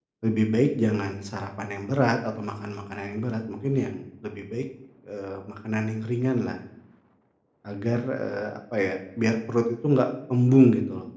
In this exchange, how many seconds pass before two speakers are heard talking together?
none

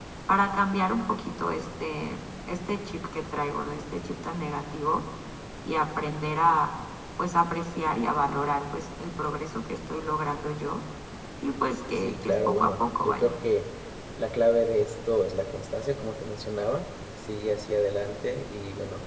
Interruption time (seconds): 12.0 s

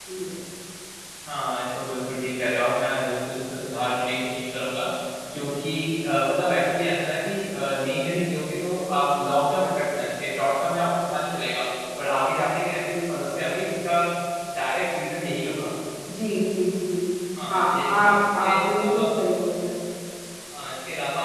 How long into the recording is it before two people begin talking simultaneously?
17.5 s

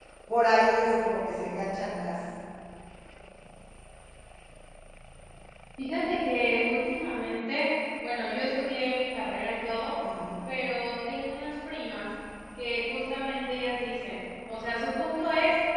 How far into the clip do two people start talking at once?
none

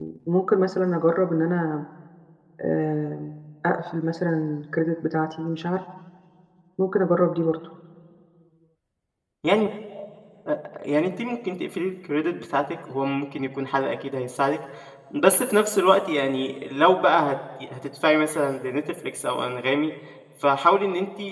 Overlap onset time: none

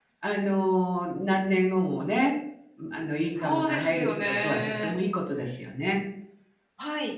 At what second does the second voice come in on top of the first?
3.3 s

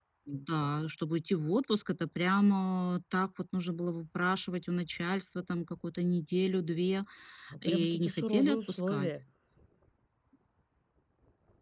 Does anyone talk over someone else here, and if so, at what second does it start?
7.6 s

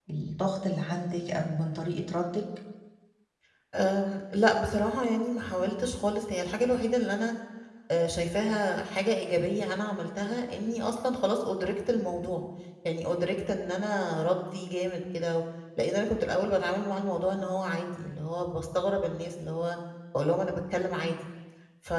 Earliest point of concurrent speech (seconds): none

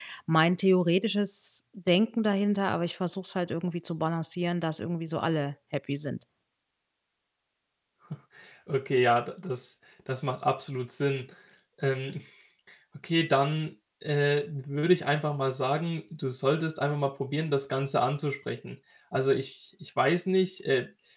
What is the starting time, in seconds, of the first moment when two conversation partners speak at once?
none

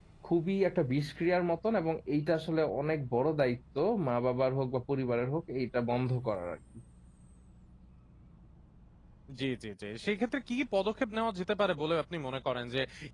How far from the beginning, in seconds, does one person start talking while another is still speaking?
none

